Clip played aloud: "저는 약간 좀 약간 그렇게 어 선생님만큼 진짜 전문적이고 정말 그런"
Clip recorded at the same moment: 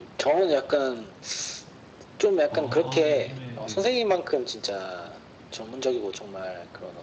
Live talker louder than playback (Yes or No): No